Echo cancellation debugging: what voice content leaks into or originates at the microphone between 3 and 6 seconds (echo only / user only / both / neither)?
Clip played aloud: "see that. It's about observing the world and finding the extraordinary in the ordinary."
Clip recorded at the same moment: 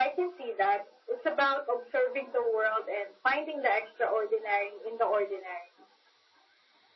echo only